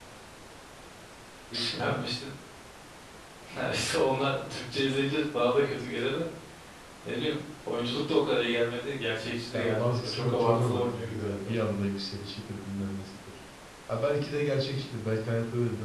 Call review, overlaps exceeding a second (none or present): present